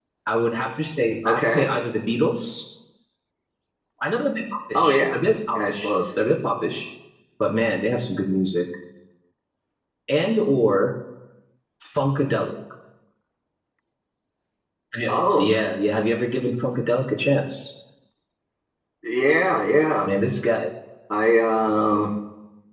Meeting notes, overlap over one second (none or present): none